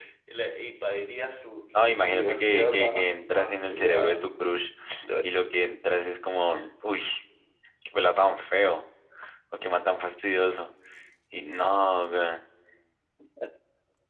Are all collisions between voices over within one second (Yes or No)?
No